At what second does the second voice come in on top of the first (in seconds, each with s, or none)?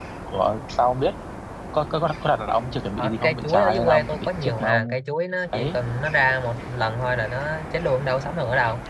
3.0 s